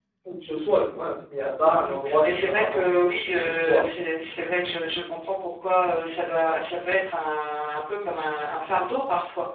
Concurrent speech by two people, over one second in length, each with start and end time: 1.6-2.8

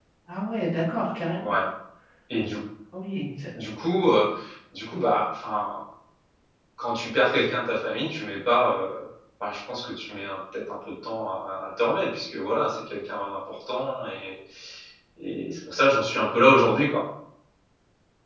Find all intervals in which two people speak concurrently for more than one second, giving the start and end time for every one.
none

